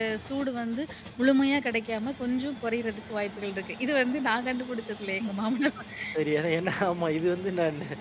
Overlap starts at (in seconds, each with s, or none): none